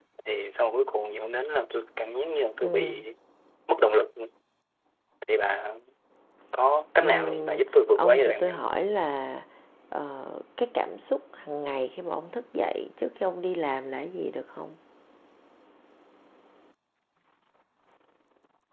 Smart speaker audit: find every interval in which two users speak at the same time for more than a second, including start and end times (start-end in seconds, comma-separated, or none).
7.0-8.7